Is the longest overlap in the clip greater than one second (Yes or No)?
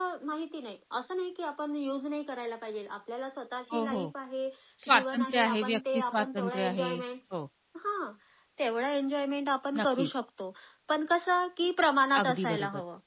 Yes